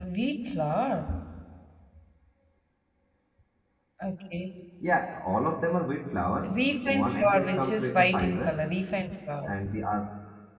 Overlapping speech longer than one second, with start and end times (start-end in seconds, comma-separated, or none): 6.5-8.6